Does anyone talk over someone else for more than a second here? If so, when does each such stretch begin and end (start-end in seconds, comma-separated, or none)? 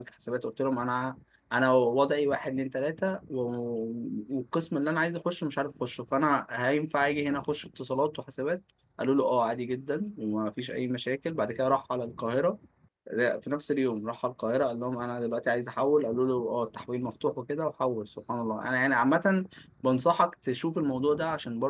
none